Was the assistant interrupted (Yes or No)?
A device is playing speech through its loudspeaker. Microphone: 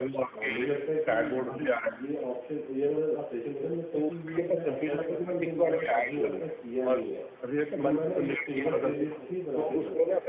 Yes